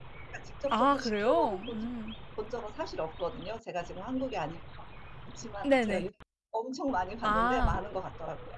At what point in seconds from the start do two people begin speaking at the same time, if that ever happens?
1 s

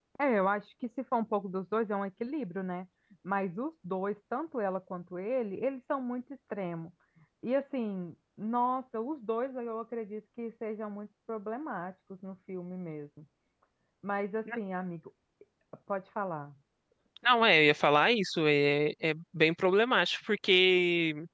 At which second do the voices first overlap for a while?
none

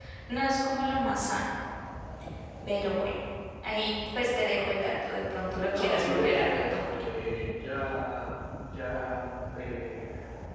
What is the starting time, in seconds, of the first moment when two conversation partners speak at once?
6 s

